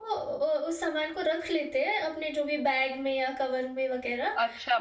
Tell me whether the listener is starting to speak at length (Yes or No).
Yes